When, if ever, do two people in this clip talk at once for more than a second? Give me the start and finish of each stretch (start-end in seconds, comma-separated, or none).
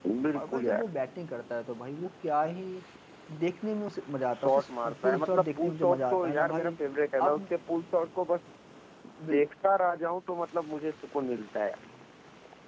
4.3-6.7